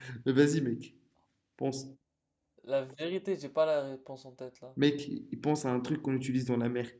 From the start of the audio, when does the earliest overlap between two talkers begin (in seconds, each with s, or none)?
none